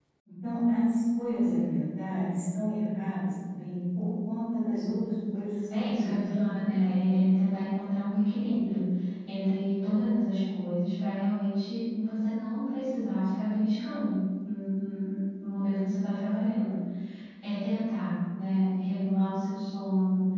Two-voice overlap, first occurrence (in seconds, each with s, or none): 5.8 s